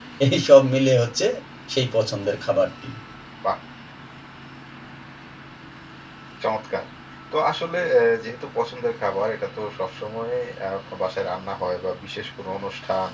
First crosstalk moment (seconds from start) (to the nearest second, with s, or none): none